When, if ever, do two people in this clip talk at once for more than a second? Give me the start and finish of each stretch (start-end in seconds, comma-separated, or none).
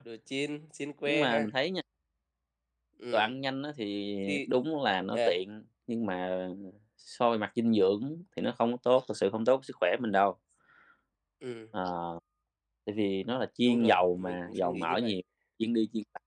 13.6-15.1